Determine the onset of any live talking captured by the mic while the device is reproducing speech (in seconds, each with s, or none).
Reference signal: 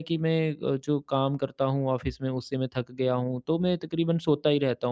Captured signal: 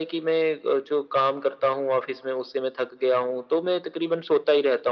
none